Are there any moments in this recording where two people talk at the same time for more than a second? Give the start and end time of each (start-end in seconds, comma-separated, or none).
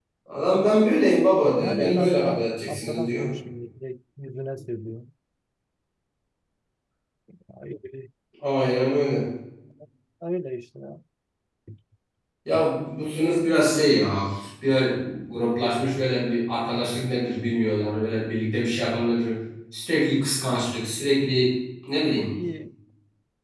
1.6-3.3